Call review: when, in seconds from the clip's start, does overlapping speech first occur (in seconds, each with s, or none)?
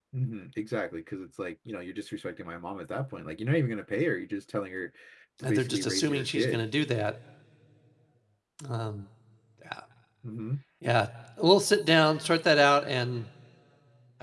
5.4 s